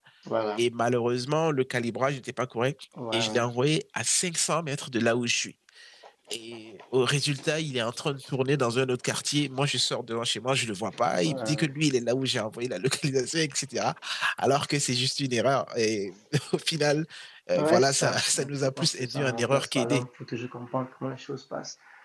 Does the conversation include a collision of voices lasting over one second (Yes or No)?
Yes